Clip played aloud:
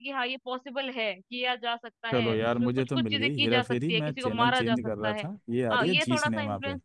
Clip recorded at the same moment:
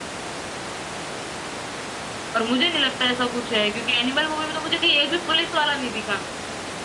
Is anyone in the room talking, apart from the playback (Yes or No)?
Yes